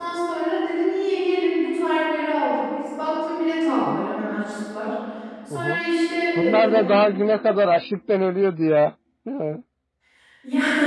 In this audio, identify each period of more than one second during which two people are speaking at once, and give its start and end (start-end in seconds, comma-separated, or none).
none